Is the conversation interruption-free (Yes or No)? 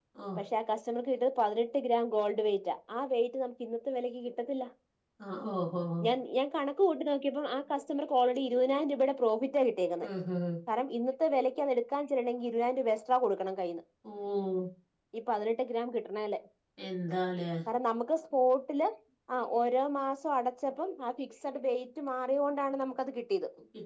Yes